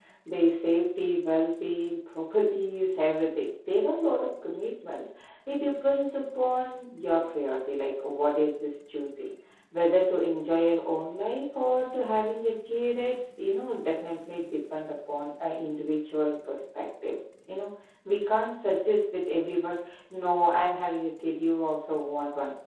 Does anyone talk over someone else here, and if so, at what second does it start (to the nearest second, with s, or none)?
none